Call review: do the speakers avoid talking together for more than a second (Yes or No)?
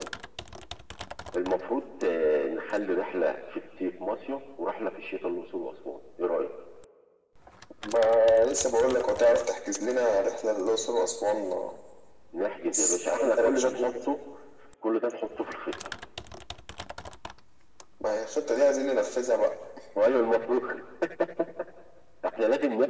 No